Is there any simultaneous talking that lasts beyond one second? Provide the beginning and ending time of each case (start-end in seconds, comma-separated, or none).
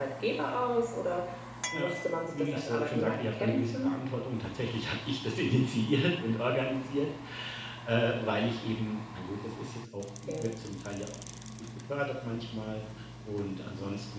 2.3-3.9